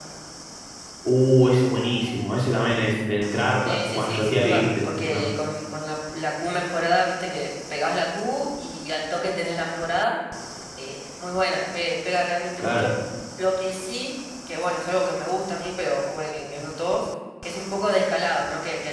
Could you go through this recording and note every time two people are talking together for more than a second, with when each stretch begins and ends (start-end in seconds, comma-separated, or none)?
3.6-5.2